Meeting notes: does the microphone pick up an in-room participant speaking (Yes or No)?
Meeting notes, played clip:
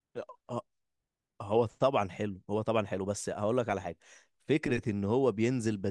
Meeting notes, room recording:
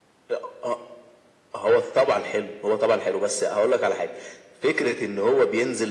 No